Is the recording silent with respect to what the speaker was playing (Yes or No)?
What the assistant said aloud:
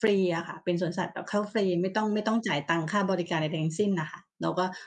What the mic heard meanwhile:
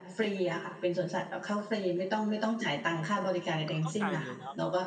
No